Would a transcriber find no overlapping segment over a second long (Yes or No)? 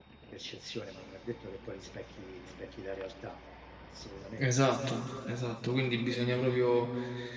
Yes